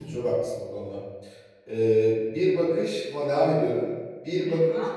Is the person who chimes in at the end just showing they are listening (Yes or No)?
Yes